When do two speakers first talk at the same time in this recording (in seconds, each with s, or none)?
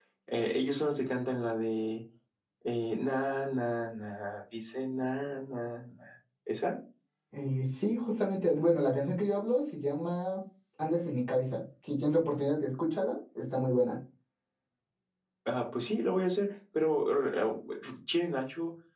none